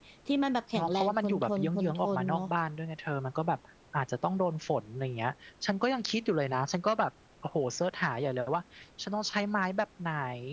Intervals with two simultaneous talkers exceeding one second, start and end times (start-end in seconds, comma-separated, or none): 0.7-2.5